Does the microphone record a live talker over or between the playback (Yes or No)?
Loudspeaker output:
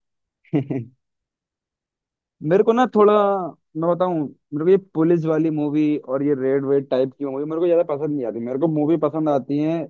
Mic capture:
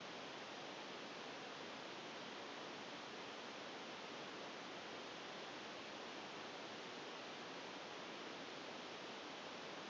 No